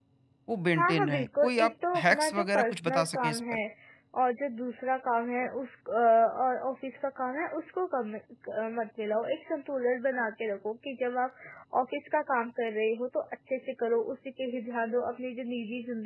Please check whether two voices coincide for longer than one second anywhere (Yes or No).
Yes